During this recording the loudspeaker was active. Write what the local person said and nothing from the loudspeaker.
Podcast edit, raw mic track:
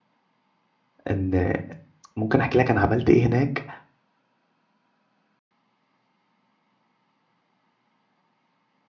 ان ممكن احكي لك انا عملت ايه هناك

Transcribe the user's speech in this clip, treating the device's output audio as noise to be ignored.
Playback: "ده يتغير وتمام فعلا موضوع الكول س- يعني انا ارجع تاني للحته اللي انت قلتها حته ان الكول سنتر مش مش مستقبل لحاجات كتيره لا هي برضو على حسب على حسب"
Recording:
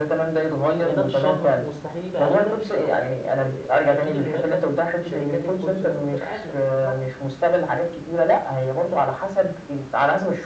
يعني ده في الشهر مستحيل يبقى قد ده في الشهر إيه، اكيد المرتب في شركات الكول سنتر هتبقى اغلى بالظبط

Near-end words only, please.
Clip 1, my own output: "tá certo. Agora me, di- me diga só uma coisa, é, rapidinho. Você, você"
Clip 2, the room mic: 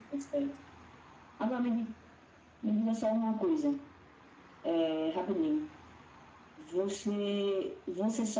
none

